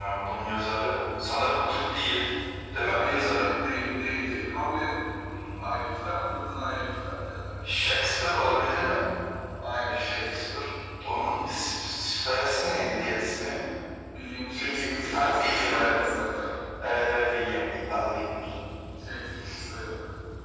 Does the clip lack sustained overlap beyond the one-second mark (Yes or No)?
No